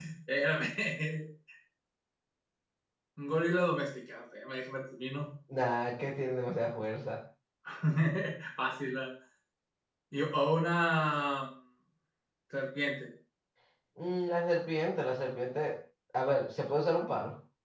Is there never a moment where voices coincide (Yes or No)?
Yes